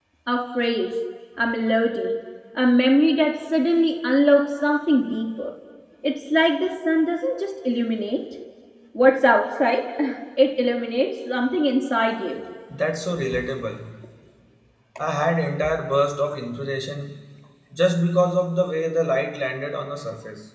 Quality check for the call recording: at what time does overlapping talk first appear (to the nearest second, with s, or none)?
none